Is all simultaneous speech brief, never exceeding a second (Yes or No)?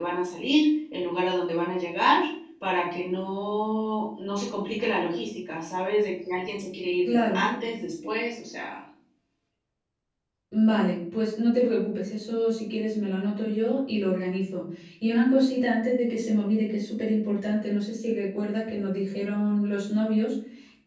Yes